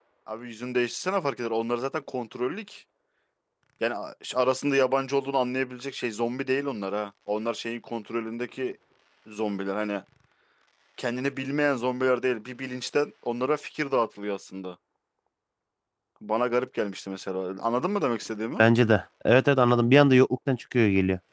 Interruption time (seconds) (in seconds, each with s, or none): none